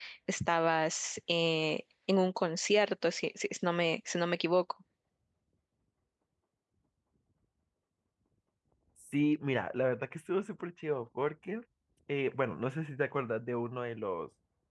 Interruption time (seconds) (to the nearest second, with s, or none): none